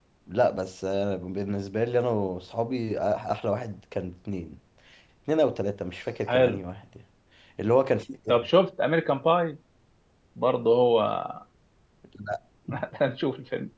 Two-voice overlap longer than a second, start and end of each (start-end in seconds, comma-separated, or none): none